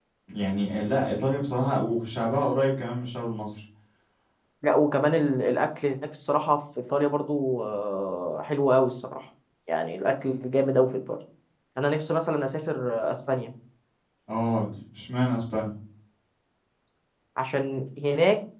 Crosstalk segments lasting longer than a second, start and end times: none

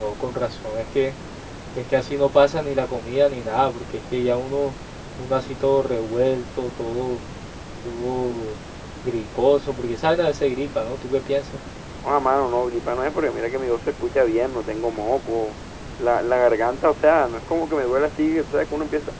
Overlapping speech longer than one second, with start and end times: none

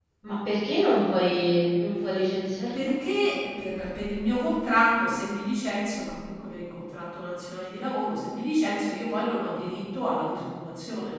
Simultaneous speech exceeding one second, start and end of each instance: none

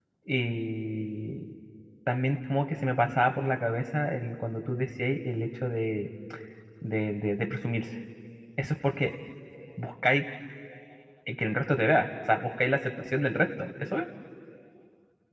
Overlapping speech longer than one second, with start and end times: none

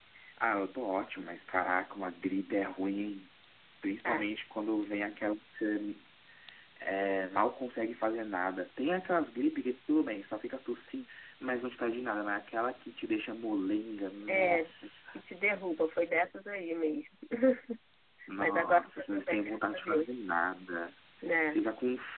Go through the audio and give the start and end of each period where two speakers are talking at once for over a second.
18.4-20.3

